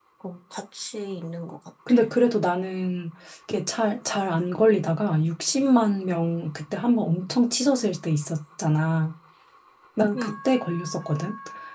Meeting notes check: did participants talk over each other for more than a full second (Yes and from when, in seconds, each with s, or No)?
No